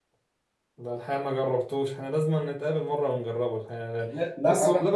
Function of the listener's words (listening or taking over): taking over